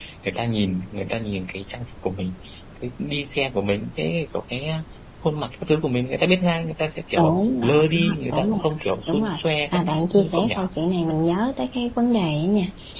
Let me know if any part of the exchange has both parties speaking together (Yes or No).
Yes